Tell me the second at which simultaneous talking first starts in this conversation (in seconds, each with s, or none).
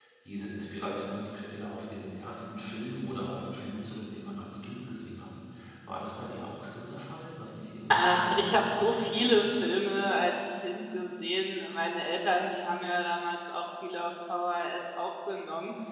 7.9 s